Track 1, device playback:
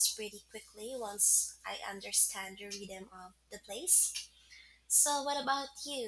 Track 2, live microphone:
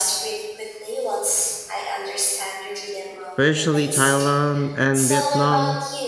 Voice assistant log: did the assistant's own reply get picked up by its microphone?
Yes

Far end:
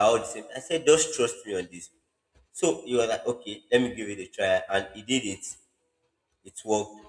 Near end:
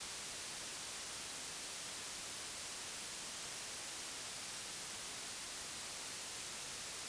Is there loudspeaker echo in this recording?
No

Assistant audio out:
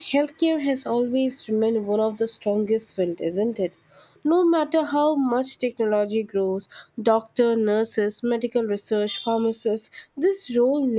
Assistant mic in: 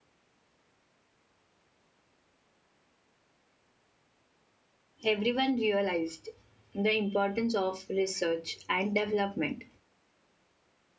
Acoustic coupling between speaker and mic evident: No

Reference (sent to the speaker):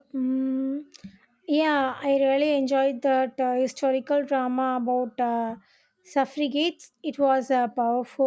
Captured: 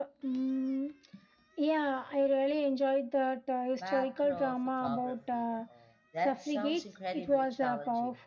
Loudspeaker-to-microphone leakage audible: Yes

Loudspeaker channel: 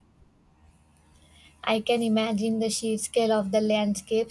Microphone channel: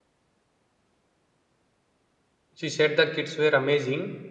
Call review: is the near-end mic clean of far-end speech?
Yes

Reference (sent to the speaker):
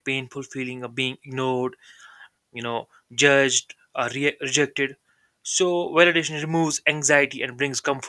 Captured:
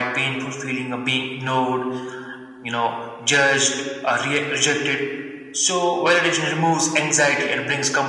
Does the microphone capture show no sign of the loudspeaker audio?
No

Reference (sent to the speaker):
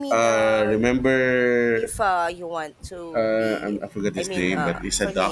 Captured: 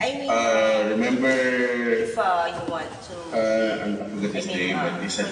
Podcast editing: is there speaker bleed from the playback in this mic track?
Yes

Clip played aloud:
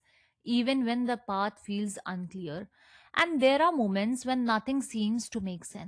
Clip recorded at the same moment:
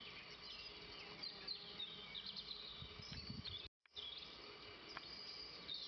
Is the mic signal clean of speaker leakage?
Yes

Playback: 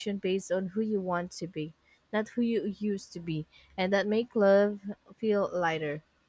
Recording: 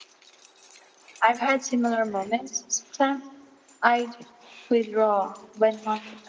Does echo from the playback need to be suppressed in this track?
No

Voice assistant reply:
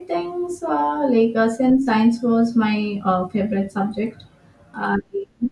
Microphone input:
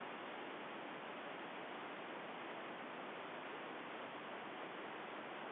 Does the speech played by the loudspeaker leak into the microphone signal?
No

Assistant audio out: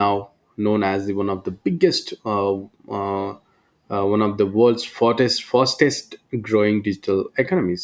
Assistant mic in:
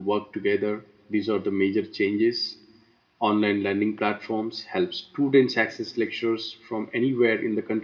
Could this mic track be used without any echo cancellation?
Yes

